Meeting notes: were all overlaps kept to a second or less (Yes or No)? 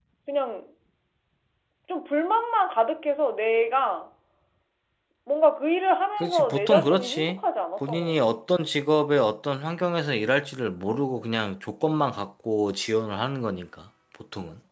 No